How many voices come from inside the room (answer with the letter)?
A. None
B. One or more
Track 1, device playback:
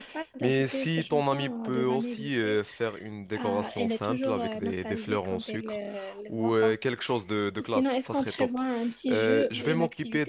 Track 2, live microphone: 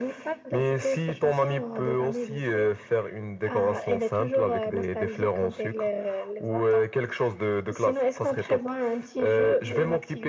A